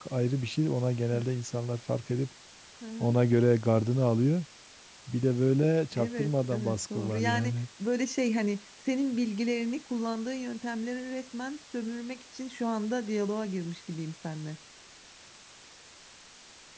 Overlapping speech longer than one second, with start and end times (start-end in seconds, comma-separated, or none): 6.0-7.6